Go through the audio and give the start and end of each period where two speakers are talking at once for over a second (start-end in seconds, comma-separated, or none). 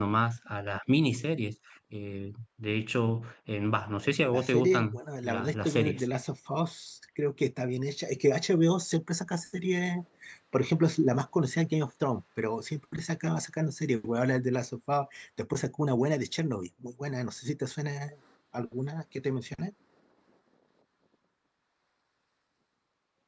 4.3-6.0